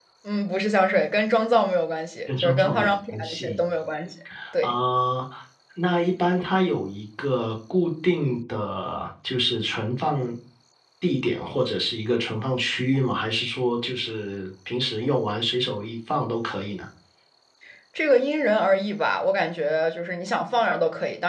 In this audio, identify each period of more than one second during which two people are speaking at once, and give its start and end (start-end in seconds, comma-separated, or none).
2.3-3.6